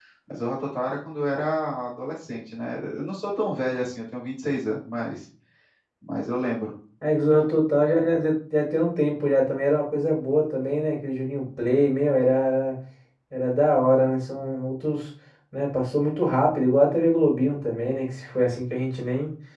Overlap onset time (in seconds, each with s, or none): none